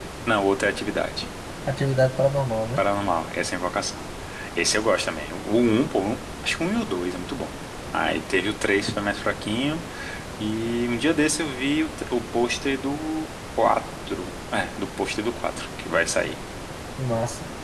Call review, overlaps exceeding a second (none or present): none